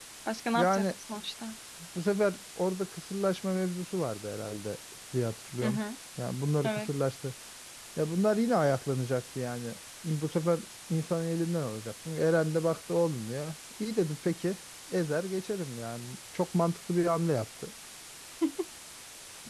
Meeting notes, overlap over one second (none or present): none